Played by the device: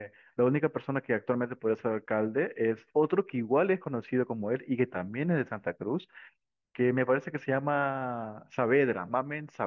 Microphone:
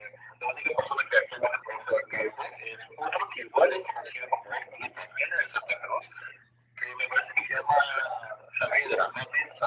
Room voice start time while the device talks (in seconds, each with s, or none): none